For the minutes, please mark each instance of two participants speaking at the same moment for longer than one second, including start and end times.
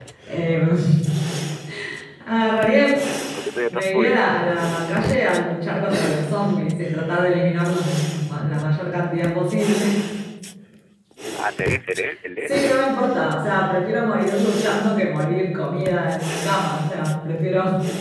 none

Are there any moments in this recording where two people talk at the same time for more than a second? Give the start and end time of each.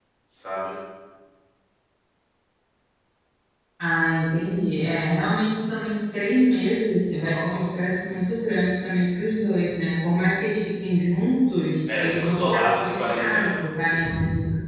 12.0-13.5

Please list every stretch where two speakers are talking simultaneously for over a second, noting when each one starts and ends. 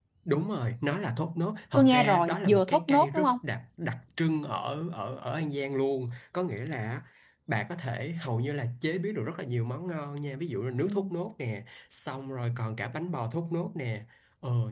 1.7-3.3

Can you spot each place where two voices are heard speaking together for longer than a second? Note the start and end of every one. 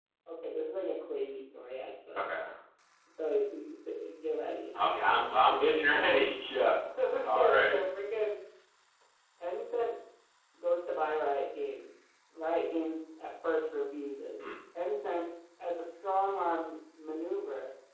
5.0-6.3

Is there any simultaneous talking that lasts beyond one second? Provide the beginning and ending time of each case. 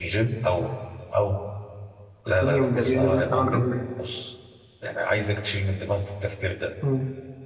2.4-3.7

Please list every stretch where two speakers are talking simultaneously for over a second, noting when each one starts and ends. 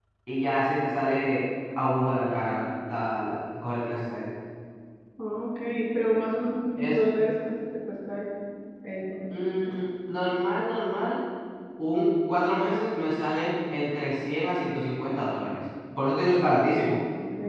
none

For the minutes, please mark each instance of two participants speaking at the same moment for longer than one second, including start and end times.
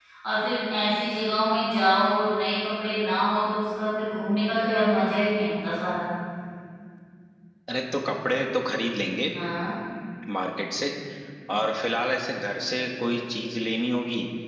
none

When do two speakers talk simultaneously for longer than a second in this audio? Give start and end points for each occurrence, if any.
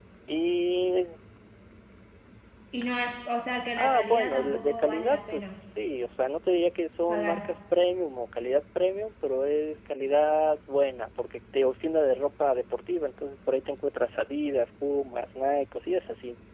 3.8-5.6

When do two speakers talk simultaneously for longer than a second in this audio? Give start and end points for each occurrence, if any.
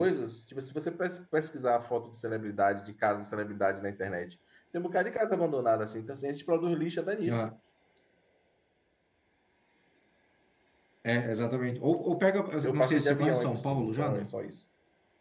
12.6-14.3

